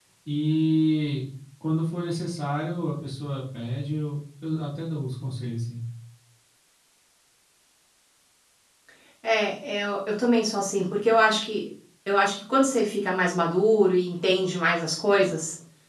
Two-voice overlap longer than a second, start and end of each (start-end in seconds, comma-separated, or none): none